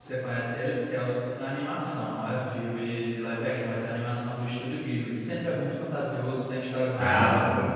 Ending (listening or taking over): listening